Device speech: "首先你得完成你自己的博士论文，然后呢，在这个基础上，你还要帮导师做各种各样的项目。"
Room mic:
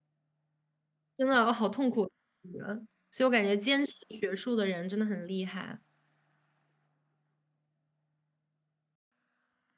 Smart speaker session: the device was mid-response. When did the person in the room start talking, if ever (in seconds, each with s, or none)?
1.2 s